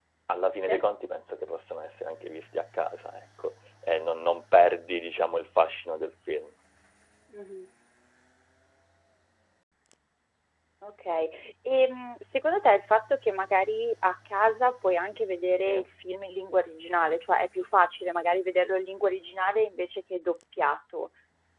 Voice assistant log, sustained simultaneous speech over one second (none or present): none